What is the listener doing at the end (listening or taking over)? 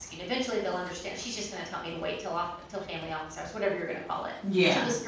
listening